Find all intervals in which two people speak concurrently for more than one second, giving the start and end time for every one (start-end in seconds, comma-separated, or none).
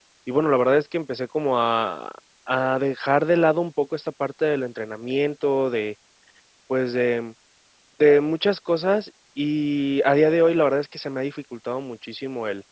none